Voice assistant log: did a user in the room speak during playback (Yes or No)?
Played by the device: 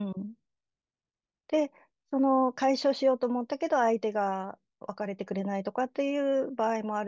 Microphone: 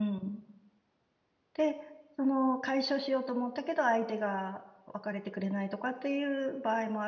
No